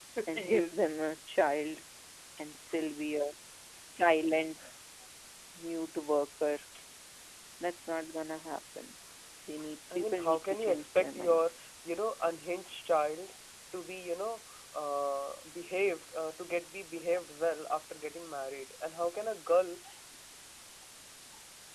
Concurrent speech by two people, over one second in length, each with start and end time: 9.9-11.5

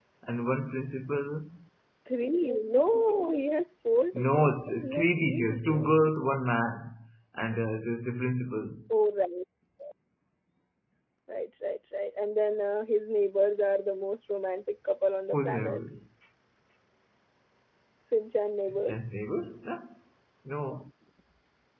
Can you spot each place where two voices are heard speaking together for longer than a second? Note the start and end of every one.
4.1-5.9

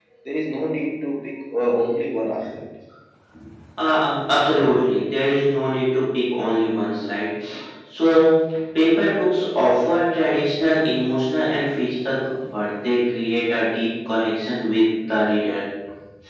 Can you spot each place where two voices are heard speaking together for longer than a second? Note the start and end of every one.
none

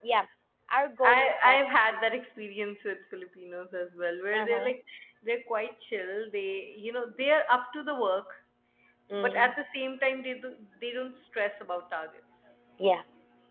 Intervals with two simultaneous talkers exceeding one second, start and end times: none

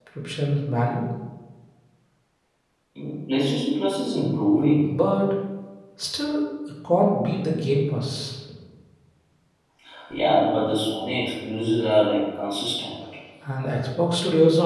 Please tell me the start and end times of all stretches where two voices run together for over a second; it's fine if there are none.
none

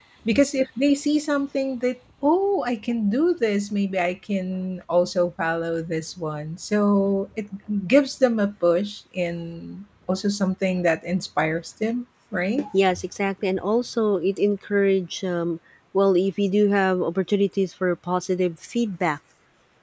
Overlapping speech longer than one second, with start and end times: none

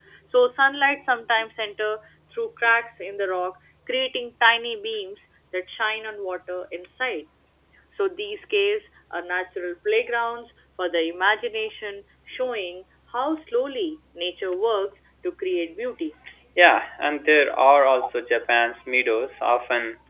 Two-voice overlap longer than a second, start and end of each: none

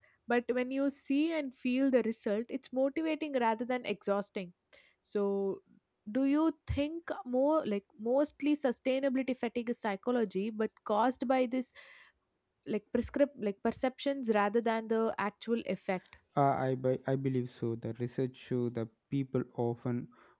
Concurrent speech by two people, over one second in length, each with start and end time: none

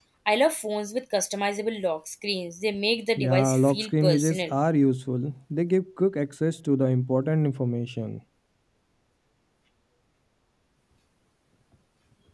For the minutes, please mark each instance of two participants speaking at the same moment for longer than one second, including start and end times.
3.2-4.5

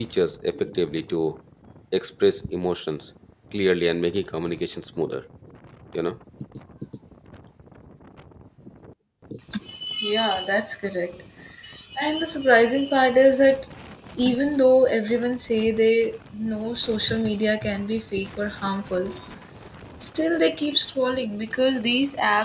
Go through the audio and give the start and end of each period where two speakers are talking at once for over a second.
none

